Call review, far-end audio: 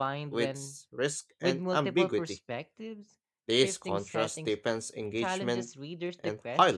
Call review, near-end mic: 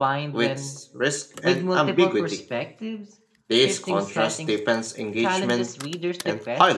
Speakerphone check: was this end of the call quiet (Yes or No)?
Yes